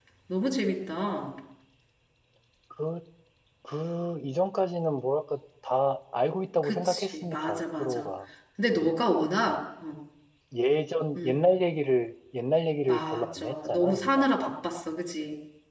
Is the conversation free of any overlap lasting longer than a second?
No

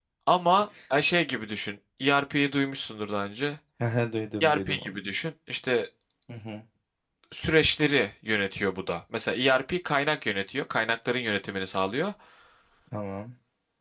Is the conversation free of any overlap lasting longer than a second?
Yes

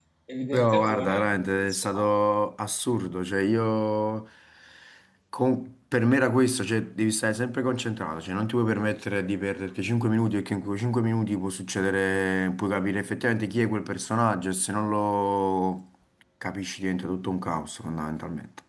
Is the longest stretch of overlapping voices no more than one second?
No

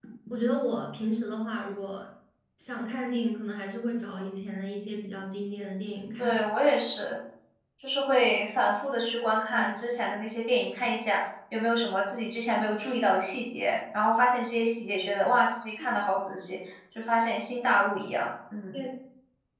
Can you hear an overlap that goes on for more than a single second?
No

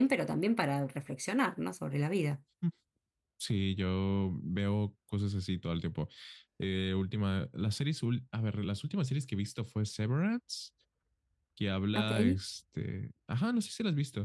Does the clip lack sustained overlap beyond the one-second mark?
Yes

